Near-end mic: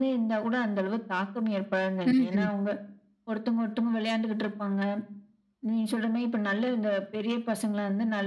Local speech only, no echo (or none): ம்ஹ்ம்.